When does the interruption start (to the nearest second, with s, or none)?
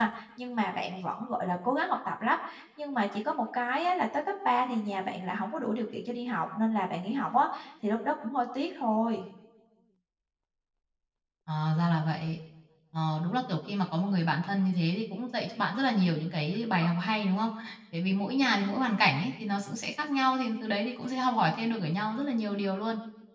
none